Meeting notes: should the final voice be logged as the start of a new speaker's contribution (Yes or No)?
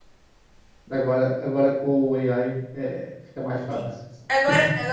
Yes